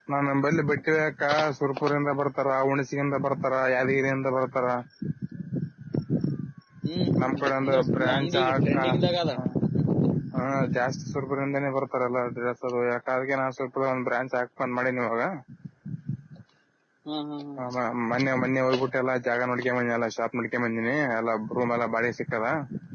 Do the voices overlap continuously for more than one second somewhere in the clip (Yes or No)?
Yes